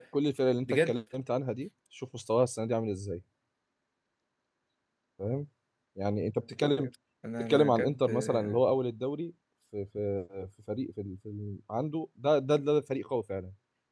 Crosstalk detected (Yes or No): Yes